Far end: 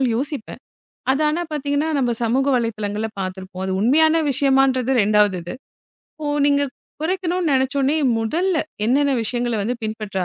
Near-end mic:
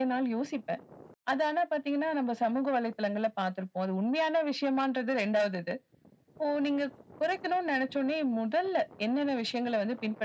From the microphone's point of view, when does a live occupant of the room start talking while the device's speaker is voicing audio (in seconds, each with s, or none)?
none